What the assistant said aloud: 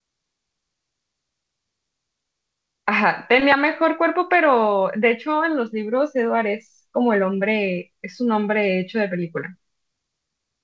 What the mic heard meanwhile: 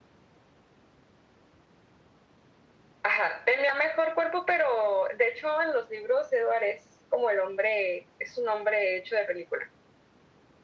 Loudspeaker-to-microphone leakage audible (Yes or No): Yes